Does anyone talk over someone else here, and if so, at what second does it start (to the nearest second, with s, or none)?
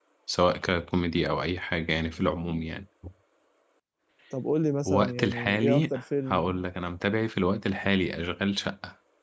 5 s